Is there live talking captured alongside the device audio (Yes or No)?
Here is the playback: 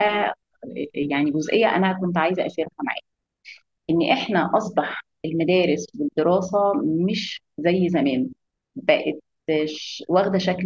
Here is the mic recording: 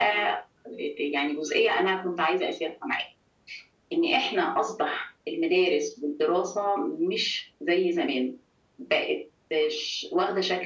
No